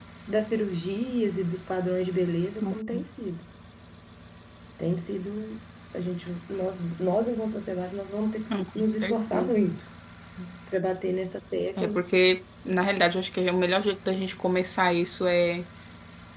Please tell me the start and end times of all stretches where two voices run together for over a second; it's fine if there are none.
8.5-9.8

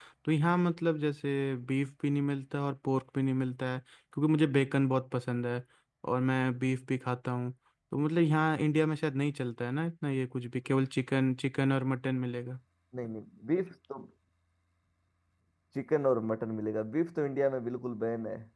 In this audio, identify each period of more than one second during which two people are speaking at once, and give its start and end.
none

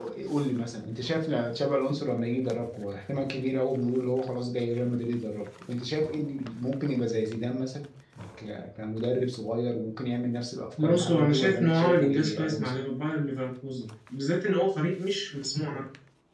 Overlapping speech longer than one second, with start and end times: 10.8-12.8

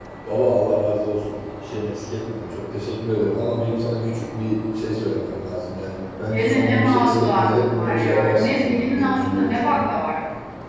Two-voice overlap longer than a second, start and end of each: 6.3-9.8

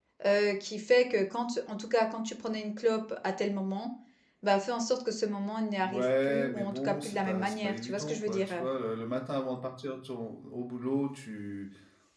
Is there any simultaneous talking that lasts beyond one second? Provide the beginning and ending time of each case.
5.8-8.6

